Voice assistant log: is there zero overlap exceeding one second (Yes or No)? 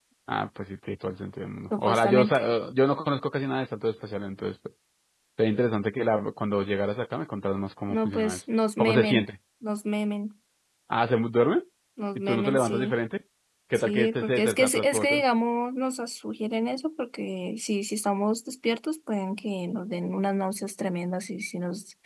No